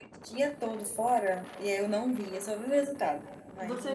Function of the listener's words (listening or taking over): taking over